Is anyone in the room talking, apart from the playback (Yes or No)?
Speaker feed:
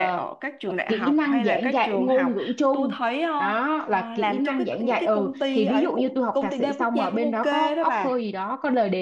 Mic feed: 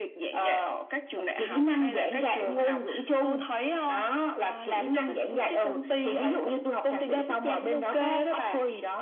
No